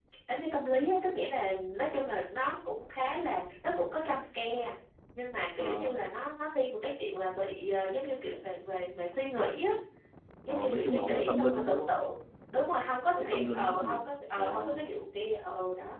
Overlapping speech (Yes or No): Yes